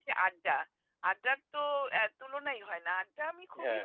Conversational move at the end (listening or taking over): listening